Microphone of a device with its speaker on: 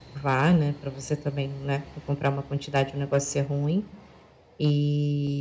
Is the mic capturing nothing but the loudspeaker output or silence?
No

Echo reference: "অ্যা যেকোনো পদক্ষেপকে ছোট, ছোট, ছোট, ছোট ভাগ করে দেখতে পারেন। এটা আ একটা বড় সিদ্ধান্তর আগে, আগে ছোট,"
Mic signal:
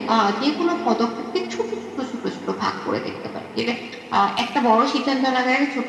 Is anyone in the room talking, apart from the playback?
No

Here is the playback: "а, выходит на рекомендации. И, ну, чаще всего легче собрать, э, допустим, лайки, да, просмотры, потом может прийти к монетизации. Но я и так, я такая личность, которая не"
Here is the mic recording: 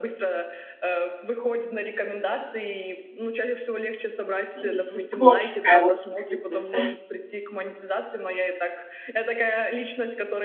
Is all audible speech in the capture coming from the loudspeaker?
No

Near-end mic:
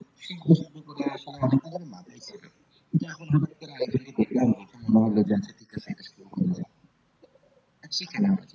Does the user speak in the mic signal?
No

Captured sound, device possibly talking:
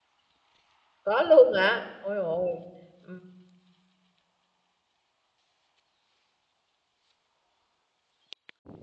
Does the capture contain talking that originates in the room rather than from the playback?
Yes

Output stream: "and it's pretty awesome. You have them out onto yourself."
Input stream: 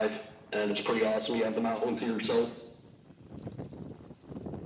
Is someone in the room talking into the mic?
No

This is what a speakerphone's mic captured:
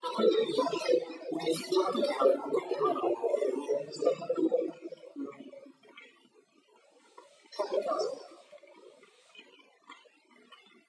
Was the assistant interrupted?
No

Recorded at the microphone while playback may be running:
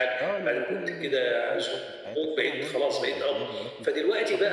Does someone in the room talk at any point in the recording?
Yes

